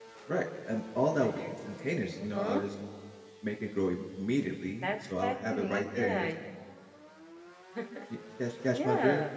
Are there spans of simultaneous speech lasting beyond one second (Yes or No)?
Yes